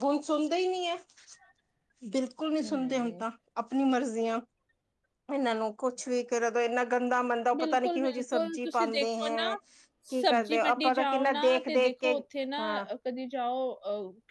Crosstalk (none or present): present